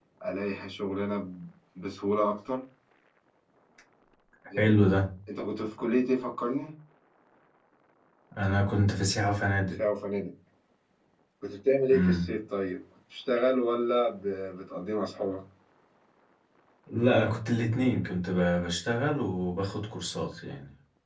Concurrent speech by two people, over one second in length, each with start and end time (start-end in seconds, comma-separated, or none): none